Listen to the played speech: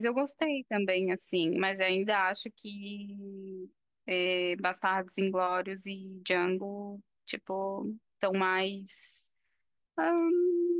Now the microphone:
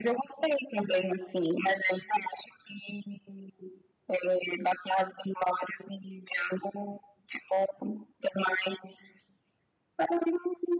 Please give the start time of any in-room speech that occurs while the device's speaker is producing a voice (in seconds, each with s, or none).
none